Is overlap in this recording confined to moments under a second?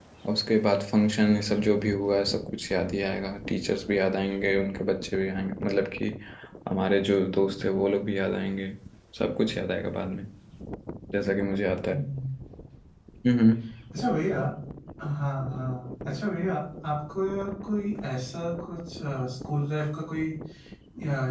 Yes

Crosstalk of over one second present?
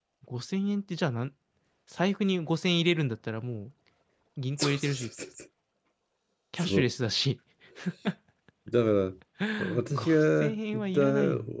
Yes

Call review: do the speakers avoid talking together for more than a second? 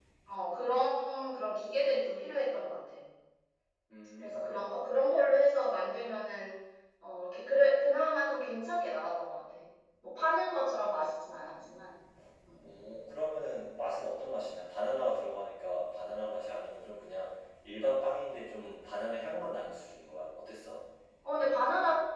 Yes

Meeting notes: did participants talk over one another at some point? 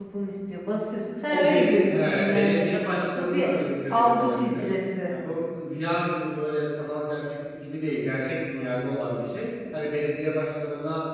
Yes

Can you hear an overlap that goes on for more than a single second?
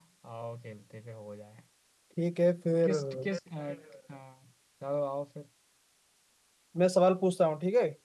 No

